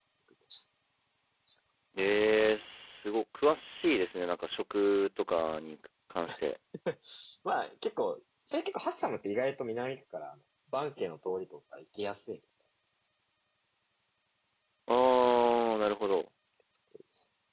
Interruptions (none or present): none